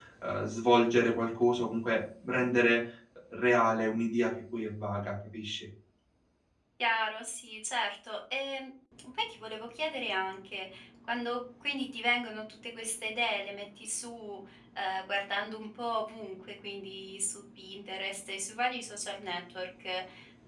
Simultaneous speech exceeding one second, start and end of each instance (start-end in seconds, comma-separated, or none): none